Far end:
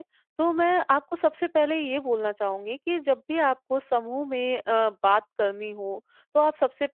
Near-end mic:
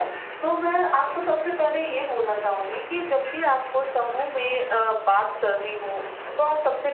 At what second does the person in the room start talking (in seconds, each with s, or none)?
none